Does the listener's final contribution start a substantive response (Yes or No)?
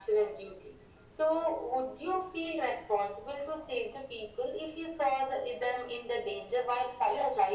Yes